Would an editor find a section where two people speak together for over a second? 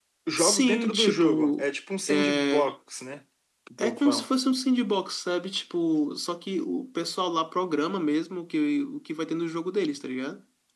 Yes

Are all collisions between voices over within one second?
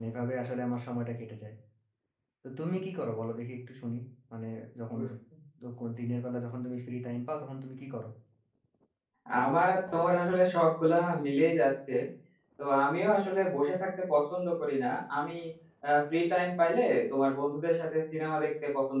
Yes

